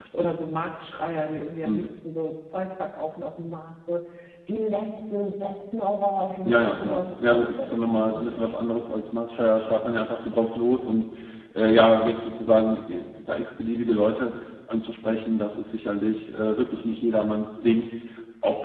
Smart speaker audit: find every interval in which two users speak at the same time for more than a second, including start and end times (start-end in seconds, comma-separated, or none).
6.5-8.6